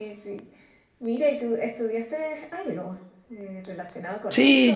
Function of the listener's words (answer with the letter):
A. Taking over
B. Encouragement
A